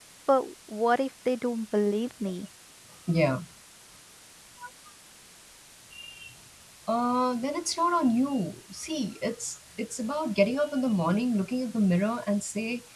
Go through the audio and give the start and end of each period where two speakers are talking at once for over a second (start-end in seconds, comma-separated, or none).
none